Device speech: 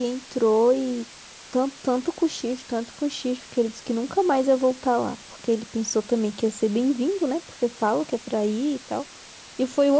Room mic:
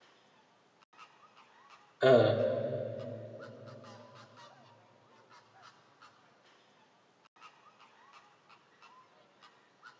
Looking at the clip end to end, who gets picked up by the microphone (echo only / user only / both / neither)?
user only